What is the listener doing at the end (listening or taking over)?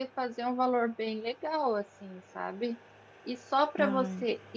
listening